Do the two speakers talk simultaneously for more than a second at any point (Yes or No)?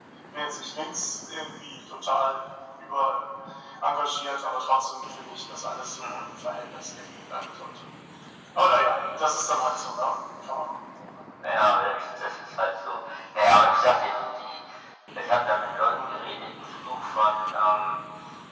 No